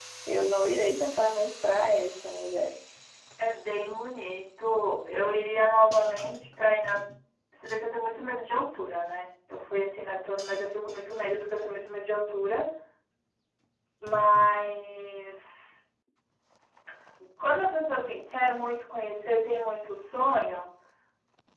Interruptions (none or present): none